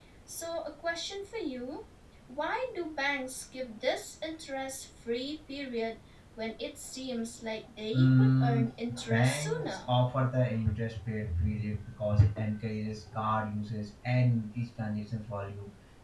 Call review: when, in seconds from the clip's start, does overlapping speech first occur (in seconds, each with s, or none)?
7.9 s